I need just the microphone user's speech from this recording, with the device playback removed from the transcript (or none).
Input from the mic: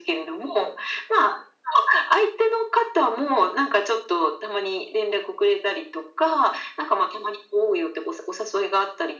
none